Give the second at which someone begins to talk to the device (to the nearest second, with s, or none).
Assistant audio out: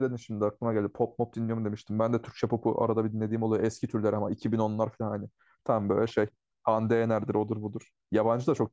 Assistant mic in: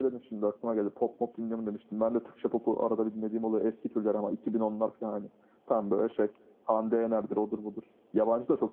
none